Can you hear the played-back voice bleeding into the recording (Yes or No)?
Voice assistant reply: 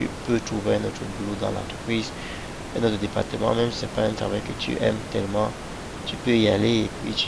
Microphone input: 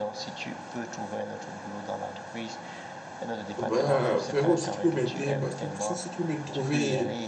Yes